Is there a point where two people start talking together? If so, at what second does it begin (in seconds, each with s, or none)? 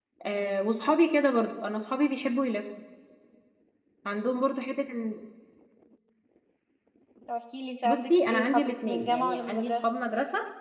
7.8 s